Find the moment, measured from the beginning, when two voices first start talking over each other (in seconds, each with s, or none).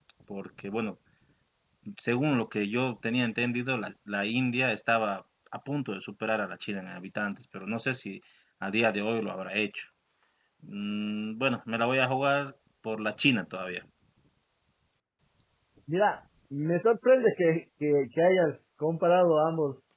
none